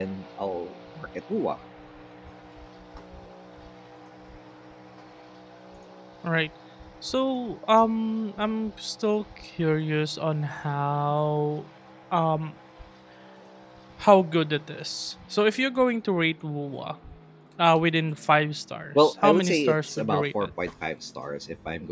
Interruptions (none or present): present